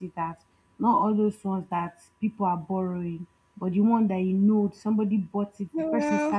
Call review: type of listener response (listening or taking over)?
listening